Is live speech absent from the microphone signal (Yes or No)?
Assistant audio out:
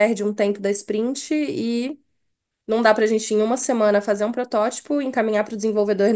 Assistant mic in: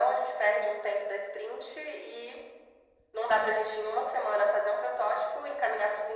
Yes